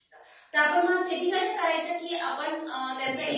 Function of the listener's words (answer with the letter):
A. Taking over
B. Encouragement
B